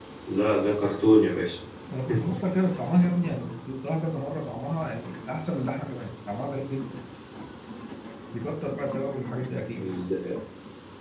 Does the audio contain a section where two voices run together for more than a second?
No

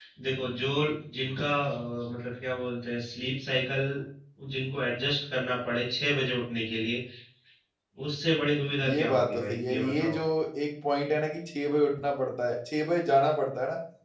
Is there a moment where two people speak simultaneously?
Yes, from 8.8 s

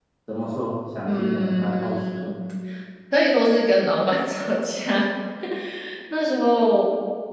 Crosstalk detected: Yes, from 1.1 s

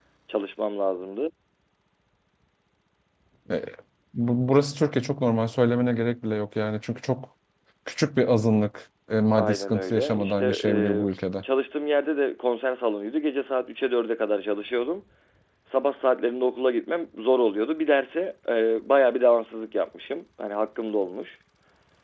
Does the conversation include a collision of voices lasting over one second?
Yes, from 9.4 s

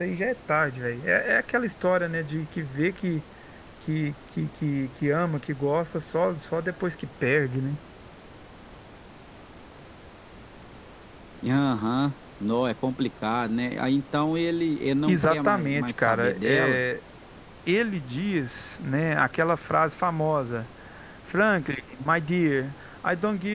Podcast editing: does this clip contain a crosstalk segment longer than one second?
Yes, from 15.1 s

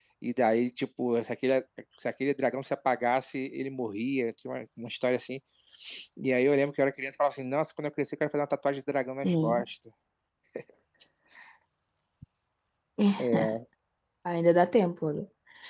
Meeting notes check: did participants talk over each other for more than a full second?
No

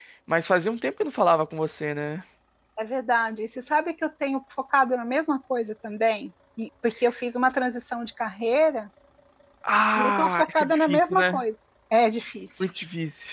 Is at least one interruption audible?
Yes, from 10.0 s

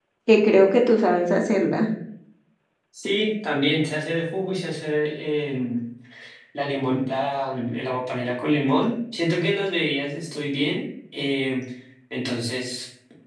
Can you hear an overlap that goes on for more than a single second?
No

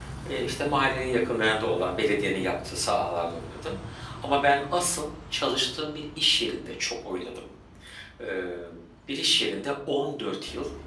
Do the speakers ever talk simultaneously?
No

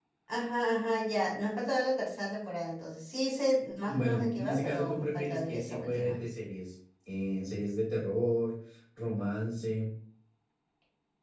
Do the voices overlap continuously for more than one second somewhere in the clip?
Yes, from 3.8 s

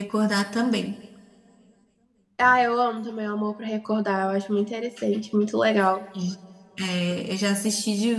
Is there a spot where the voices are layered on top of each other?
No

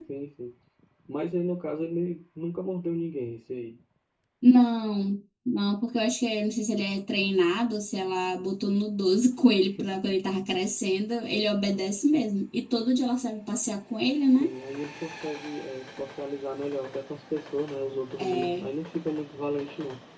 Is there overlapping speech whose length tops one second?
No

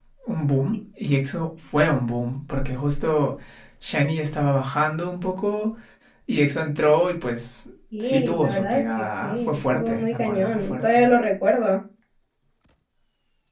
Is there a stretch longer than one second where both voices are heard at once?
Yes, from 7.9 s

